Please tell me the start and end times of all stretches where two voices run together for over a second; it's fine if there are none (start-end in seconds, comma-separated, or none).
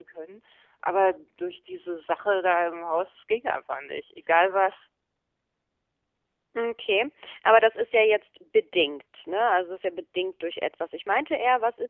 none